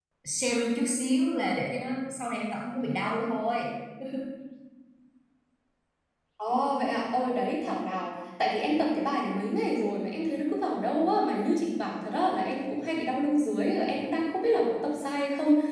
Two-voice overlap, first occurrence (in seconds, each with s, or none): none